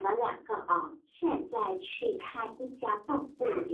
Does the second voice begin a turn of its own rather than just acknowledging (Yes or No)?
No